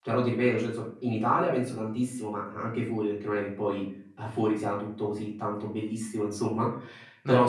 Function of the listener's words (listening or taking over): listening